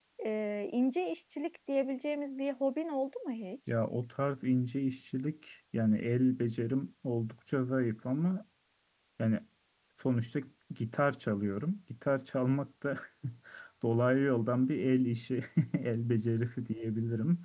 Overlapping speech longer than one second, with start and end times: none

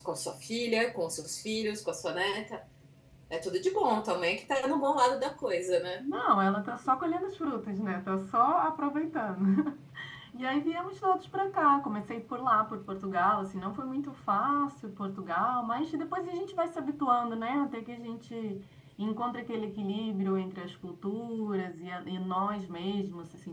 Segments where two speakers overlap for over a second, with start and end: none

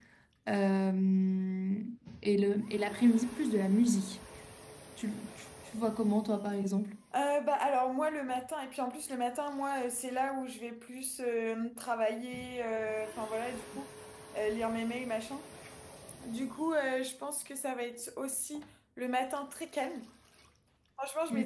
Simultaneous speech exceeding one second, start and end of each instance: none

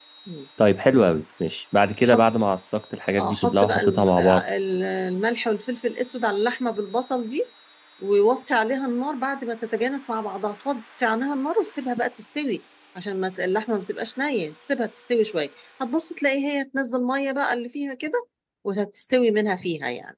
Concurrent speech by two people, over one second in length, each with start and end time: 3.2-4.4

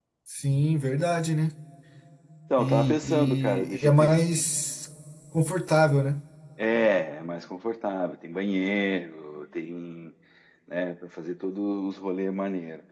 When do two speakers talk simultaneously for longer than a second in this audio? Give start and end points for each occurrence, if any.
2.6-4.1

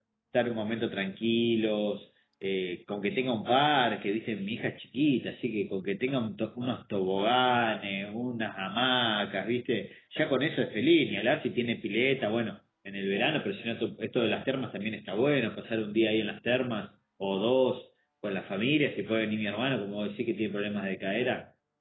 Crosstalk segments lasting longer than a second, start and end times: none

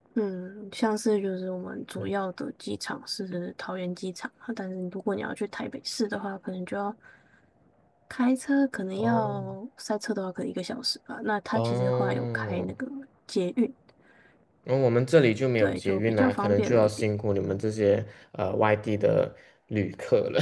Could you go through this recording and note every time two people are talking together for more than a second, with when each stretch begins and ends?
11.5-12.7, 15.6-16.9

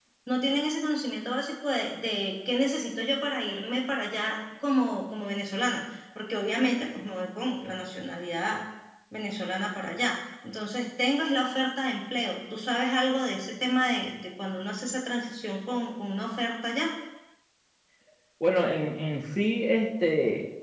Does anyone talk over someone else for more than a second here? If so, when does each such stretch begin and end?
none

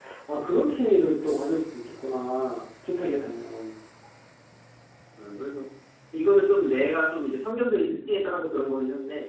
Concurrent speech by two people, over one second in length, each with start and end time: none

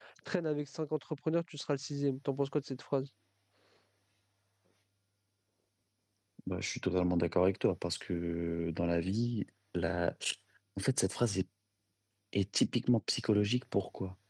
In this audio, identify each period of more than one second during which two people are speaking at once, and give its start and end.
none

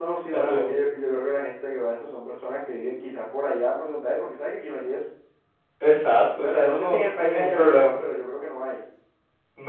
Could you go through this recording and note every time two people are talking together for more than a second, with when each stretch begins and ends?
6.0-7.9

